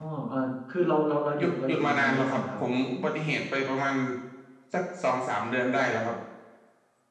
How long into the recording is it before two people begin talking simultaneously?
1.4 s

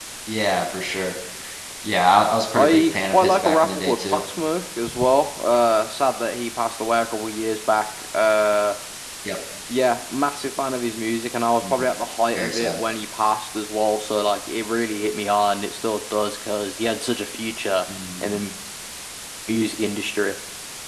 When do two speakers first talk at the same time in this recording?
2.6 s

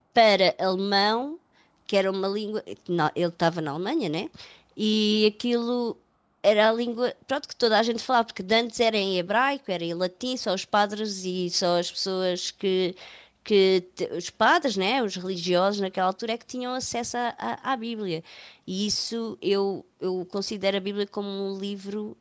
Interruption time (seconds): none

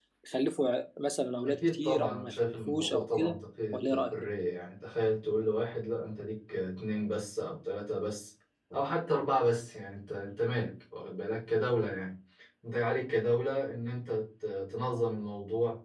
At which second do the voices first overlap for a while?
1.4 s

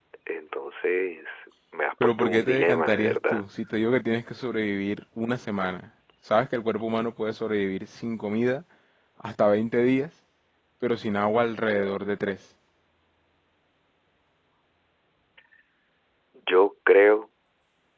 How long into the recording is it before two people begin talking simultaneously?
2.0 s

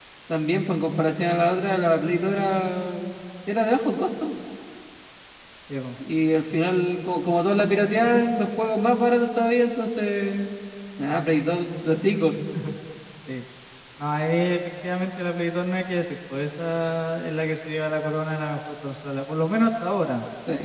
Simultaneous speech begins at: none

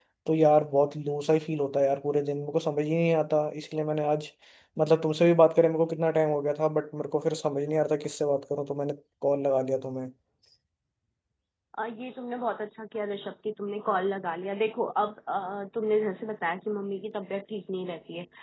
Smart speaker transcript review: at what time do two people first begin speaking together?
none

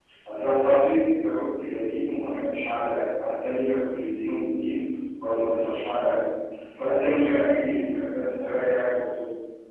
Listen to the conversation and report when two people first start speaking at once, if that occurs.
none

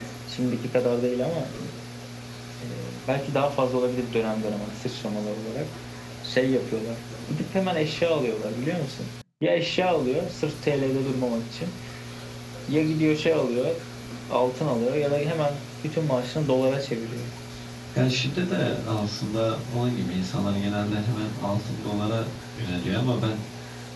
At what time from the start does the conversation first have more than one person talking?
none

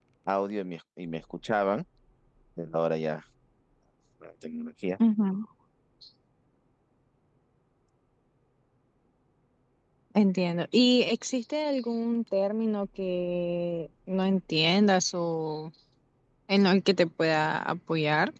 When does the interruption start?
none

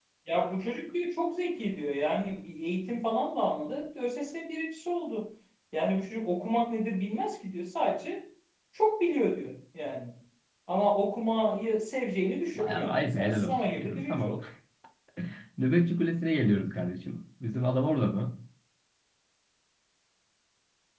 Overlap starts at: 12.5 s

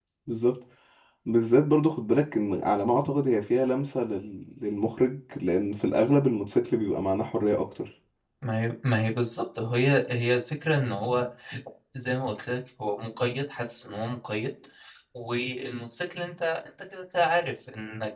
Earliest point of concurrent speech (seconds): none

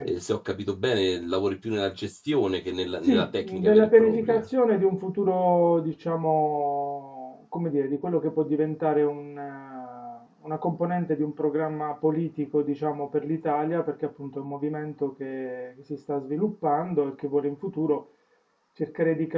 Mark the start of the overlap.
3.0 s

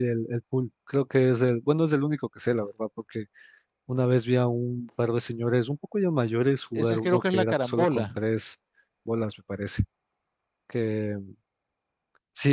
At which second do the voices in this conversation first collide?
6.8 s

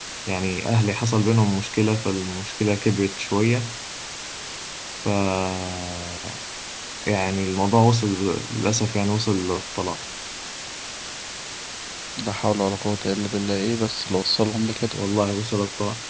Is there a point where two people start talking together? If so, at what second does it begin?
none

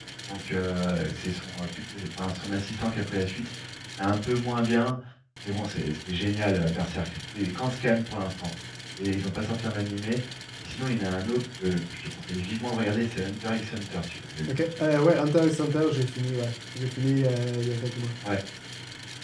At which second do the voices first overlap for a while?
none

